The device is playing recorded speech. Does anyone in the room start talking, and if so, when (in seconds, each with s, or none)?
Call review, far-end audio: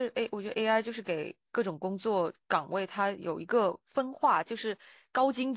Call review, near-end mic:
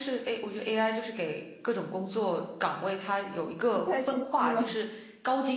3.7 s